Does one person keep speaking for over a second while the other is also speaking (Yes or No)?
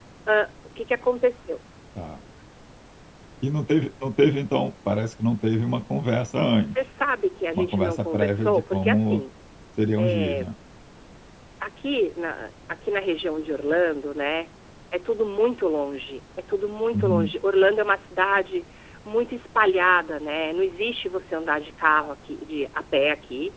Yes